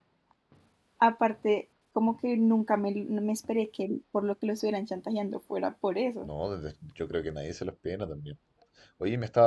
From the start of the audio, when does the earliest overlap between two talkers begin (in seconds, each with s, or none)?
none